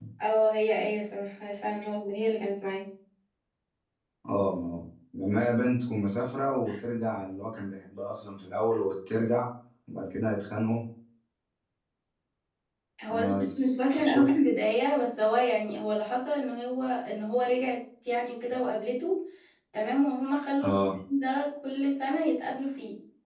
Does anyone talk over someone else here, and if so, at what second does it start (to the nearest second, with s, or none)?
13 s